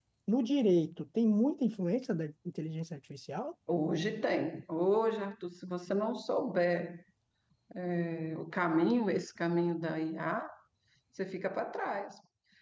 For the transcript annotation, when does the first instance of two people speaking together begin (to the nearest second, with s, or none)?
none